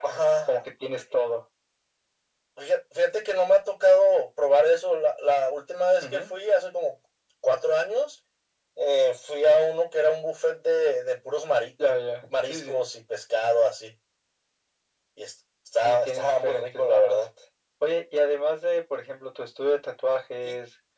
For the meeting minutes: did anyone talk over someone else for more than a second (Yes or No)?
Yes